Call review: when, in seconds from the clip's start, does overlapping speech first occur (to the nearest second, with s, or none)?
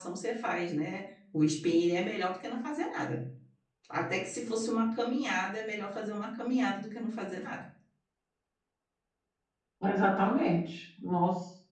none